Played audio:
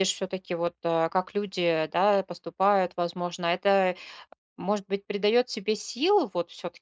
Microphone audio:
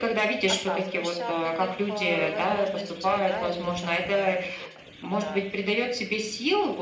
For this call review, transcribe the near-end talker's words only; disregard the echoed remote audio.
отказываешься от таких, а, возможностей, да, или там, э, ну, то есть вот как-то

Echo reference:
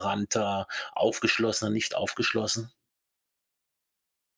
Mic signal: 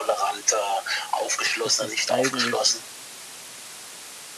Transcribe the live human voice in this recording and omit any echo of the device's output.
ist das eigentlich,

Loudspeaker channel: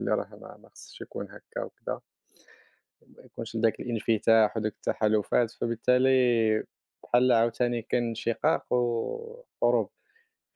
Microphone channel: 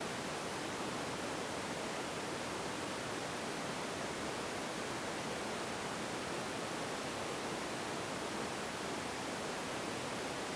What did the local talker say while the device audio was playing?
none

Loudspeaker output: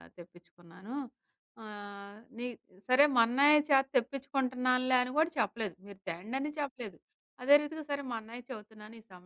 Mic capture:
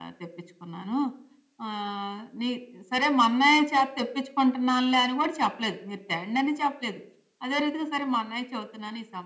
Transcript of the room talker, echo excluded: none

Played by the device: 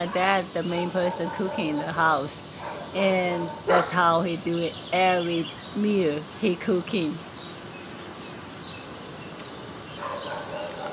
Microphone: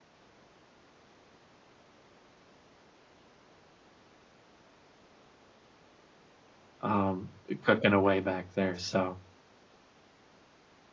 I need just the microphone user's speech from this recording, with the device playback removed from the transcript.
um, cooking away back there, so

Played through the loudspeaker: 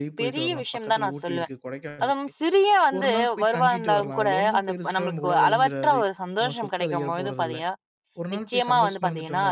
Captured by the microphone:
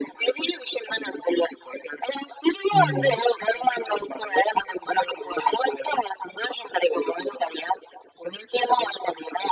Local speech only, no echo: ம்.

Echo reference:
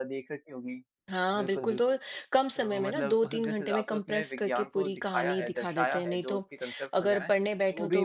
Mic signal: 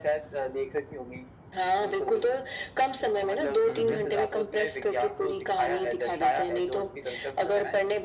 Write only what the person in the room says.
हुँ, हुँ।

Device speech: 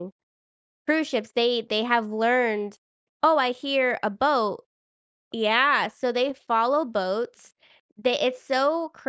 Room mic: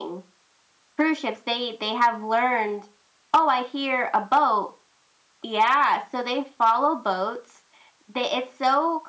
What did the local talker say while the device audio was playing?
none

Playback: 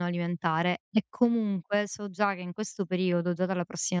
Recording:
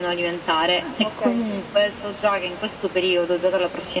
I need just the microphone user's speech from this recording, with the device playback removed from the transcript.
Ah, okay.

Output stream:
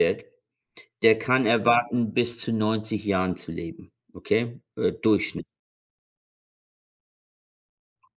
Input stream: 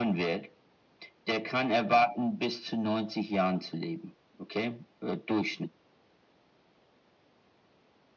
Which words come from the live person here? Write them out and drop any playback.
none

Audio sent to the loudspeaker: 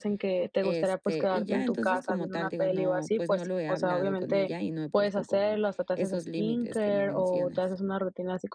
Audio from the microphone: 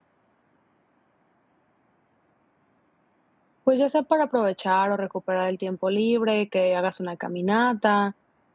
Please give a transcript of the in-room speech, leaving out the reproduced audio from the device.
pues ya sea para aprovechar o recuperar el tiempo libre, que hagas una caminata,

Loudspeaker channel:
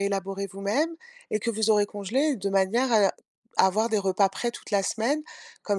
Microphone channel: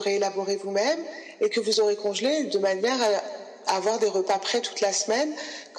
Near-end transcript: none

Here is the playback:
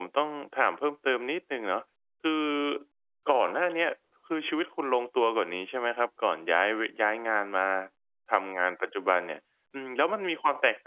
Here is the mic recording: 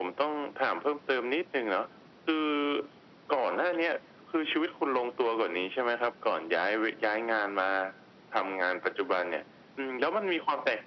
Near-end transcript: none

